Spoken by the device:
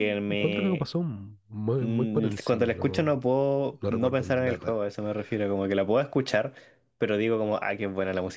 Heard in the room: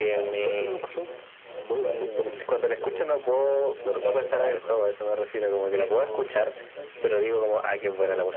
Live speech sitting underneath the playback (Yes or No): Yes